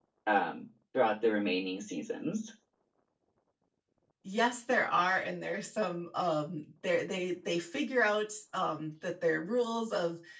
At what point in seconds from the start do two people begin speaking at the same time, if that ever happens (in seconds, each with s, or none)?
none